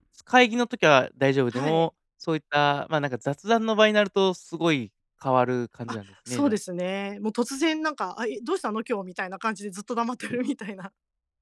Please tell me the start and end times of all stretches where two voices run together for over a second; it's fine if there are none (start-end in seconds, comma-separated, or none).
none